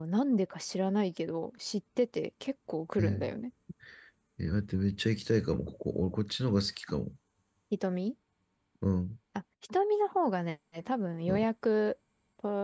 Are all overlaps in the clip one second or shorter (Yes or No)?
Yes